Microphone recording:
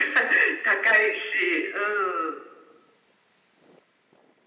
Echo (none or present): present